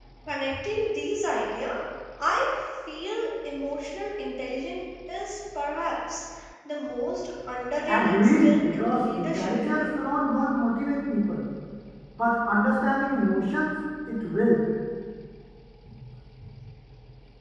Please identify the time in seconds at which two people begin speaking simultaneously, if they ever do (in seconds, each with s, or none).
7.9 s